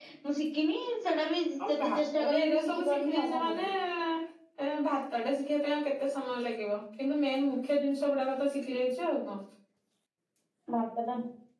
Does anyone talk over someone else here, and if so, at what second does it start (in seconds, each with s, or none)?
1.6 s